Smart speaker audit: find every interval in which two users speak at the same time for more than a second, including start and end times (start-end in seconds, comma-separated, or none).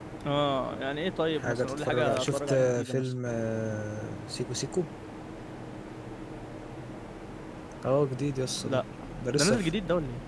1.4-3.1